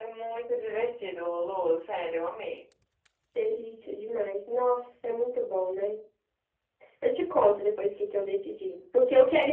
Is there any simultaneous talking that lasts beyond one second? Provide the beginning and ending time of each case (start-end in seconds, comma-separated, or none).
none